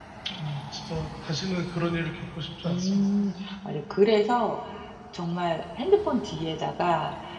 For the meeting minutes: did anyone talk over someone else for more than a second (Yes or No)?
No